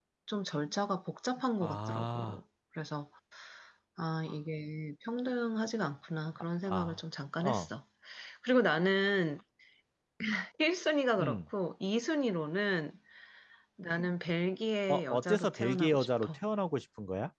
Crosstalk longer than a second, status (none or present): present